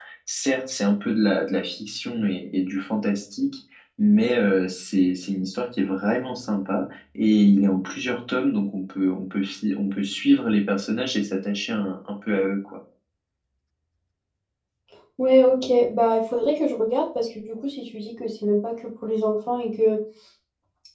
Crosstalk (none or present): none